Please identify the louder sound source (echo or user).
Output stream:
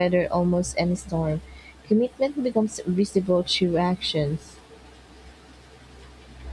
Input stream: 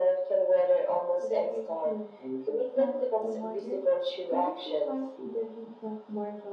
echo